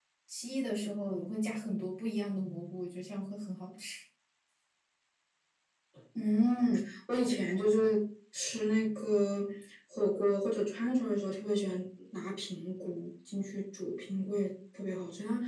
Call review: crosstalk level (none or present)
none